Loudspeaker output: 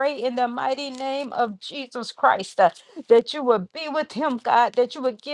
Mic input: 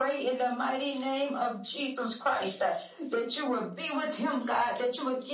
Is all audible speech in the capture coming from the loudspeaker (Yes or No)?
Yes